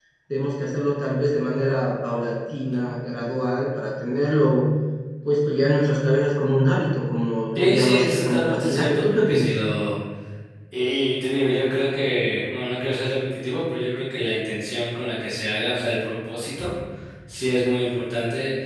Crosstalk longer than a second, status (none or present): present